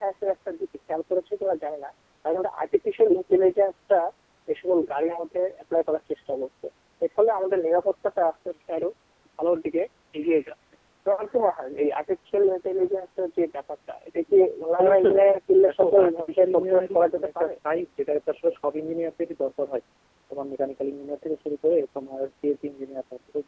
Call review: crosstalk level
present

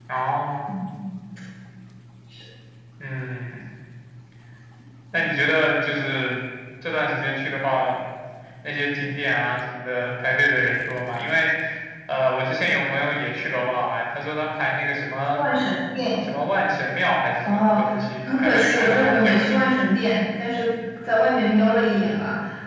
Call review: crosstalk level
present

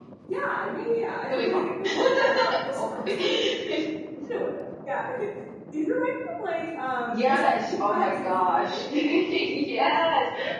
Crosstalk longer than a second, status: present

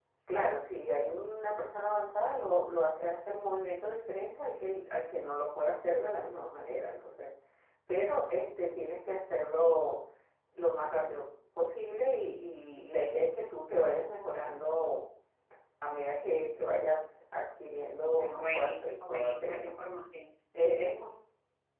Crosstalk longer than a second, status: present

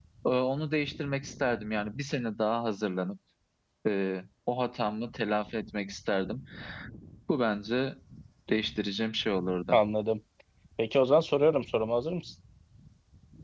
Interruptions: none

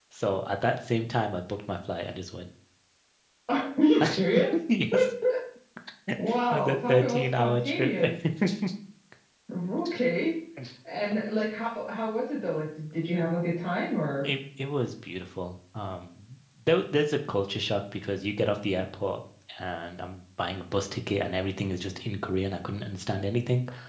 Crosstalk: present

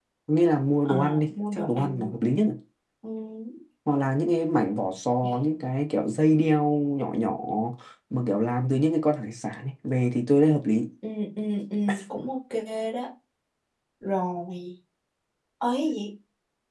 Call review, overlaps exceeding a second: present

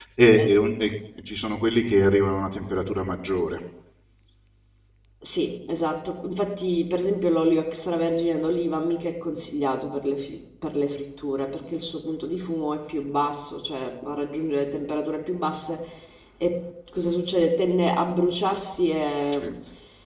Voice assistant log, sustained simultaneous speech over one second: none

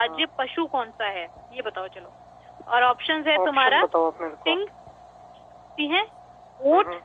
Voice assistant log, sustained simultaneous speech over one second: none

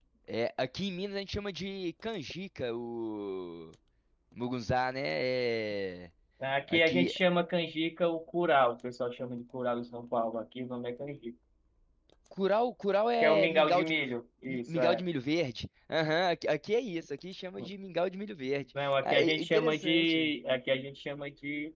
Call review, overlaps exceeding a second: present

